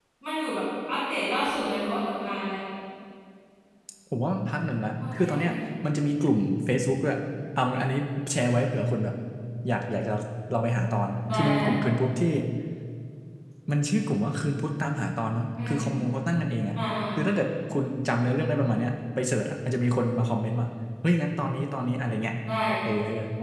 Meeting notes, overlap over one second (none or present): none